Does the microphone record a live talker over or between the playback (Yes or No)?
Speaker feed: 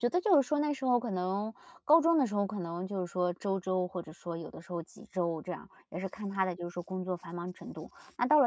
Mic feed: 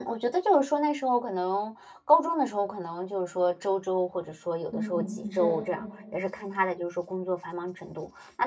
Yes